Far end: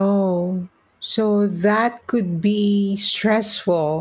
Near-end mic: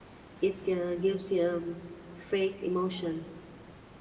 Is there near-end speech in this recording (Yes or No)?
Yes